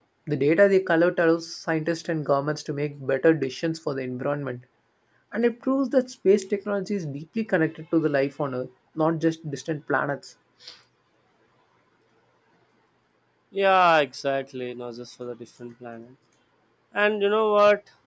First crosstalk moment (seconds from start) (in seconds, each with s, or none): none